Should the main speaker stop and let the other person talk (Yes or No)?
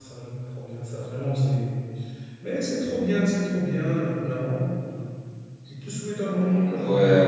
Yes